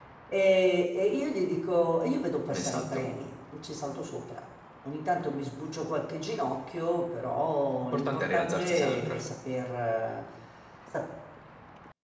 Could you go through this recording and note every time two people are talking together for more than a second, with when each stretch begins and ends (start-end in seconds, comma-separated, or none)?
7.8-9.2